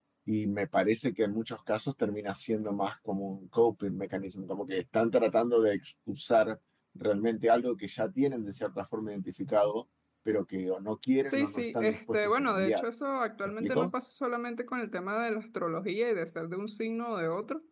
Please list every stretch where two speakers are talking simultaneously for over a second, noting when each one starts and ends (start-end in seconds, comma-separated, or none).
11.2-12.8